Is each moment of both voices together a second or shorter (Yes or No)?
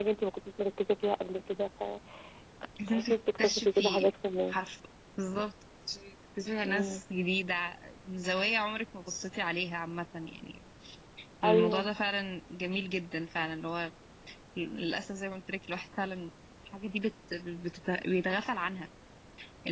No